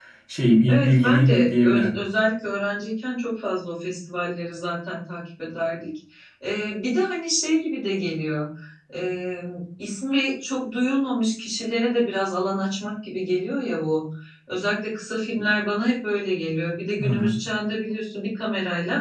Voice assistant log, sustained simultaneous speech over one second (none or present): present